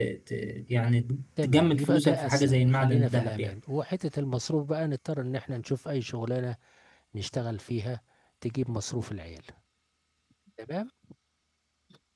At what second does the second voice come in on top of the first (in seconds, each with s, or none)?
1.4 s